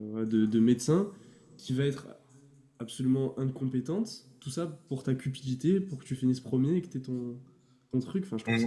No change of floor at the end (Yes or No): No